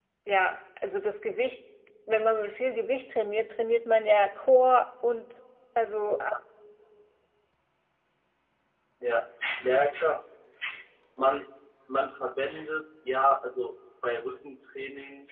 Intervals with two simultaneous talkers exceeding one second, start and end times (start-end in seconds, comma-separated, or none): none